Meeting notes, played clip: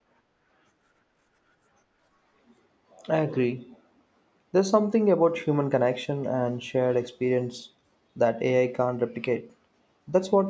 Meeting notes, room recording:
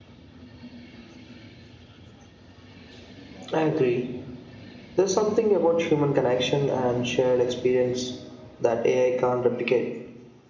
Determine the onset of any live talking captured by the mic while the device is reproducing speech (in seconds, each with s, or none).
none